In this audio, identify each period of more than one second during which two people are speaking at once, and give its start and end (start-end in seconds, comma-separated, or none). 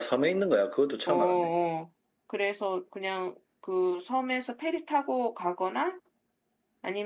none